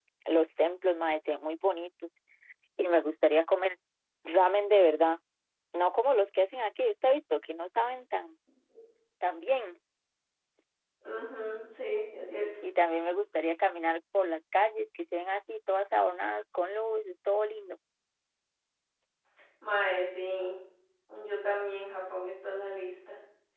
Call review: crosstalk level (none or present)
none